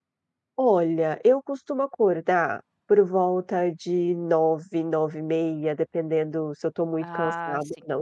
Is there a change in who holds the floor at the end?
No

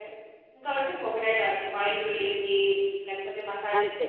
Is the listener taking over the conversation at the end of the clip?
Yes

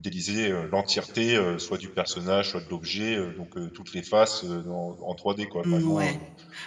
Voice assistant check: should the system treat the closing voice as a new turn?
Yes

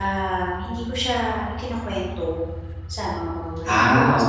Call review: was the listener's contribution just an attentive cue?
Yes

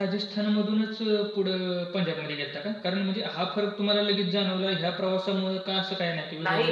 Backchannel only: No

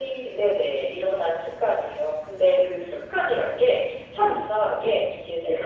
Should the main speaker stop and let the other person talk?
No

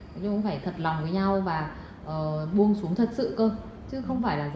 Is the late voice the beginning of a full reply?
No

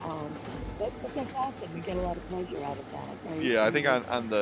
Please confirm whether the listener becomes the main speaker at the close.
Yes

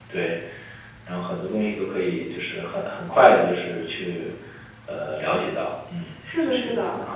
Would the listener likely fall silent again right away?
No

